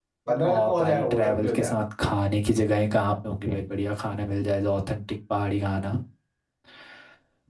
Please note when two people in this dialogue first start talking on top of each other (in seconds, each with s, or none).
0.5 s